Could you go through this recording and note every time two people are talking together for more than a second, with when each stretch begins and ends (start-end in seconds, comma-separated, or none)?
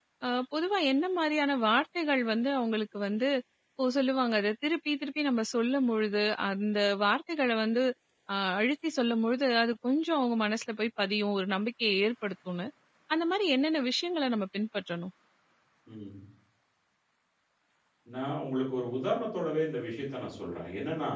none